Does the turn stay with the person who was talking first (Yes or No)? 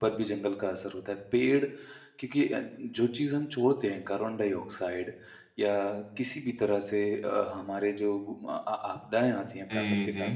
Yes